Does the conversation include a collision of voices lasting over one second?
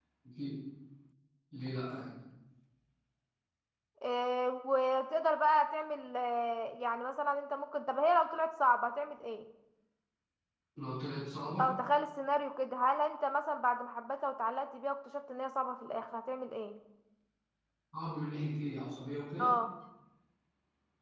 No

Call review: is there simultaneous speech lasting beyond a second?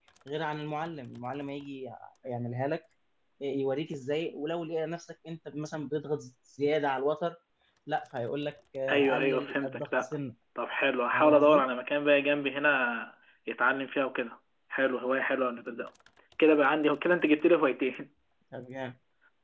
Yes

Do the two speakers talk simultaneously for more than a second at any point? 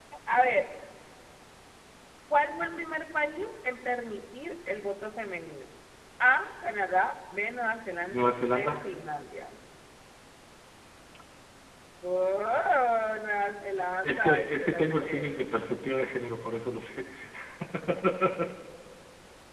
Yes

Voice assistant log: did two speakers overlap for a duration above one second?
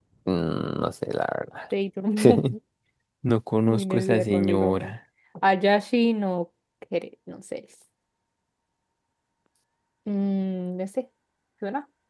Yes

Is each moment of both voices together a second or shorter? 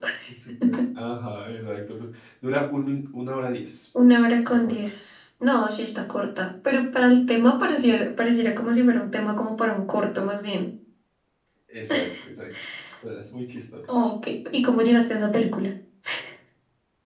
Yes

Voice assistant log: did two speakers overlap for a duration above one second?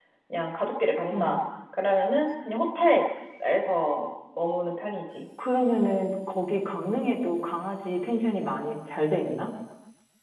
No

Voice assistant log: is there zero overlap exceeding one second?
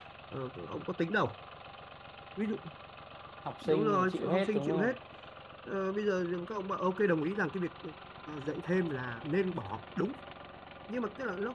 No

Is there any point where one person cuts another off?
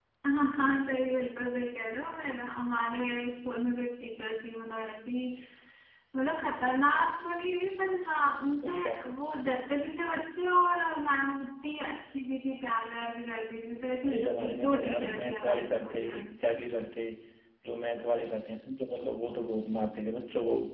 Yes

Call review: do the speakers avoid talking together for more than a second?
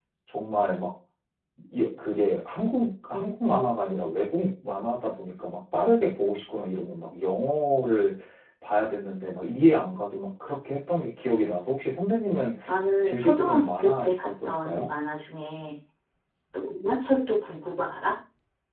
No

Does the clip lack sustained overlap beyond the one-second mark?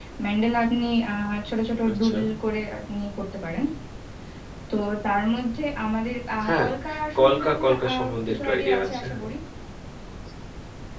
No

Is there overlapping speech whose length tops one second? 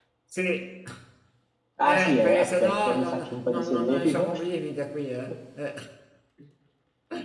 Yes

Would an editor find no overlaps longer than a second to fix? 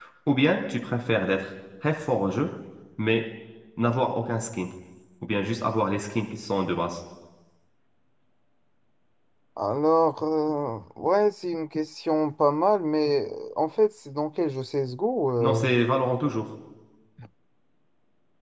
Yes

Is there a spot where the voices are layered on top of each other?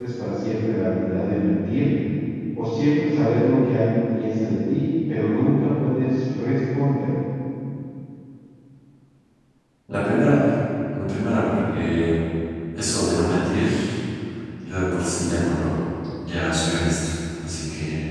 No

